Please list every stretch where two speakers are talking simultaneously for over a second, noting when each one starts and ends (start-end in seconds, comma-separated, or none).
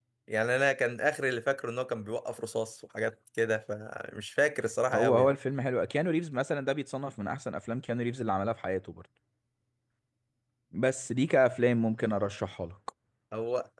none